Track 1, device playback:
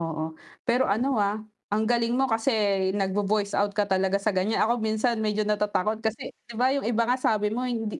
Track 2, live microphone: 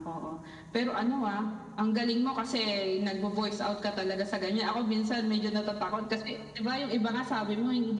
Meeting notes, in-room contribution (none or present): none